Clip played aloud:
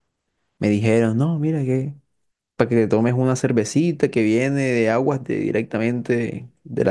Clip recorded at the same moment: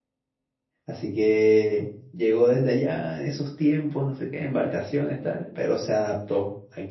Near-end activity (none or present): present